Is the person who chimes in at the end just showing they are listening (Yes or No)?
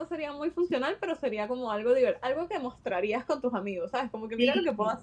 No